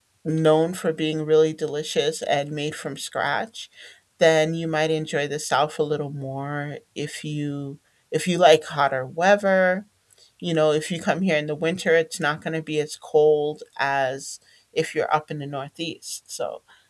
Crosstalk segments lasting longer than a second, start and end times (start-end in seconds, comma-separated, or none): none